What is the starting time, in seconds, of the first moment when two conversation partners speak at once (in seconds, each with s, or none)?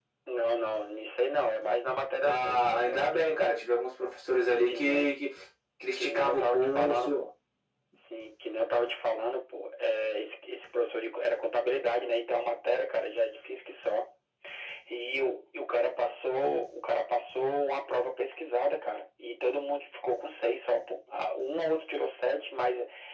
2.2 s